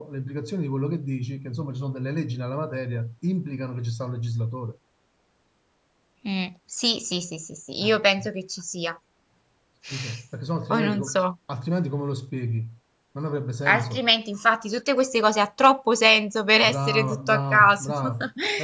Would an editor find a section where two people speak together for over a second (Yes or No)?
Yes